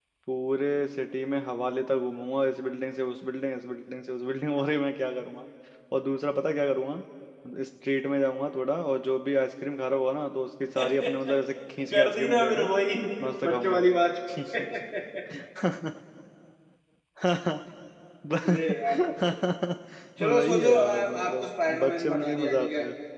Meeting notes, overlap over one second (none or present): present